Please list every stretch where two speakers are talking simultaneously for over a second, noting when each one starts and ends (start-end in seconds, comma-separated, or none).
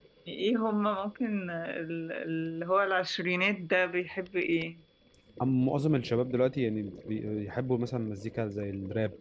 none